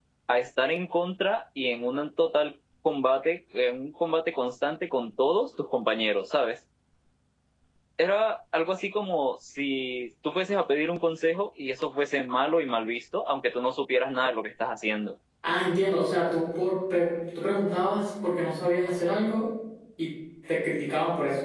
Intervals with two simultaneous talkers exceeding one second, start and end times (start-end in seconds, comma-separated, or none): none